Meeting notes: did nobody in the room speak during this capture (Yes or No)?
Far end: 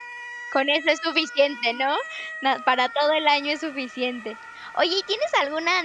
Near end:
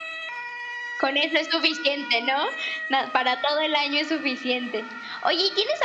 Yes